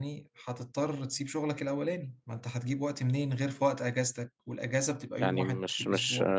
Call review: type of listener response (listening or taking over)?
taking over